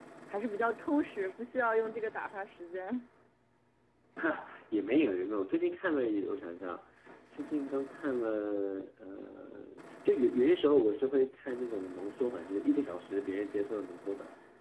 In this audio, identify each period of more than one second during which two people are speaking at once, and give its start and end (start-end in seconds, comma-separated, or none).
none